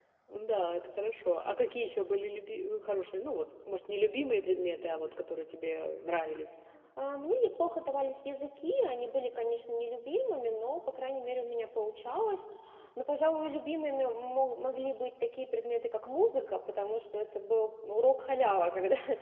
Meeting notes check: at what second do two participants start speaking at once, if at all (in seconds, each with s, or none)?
none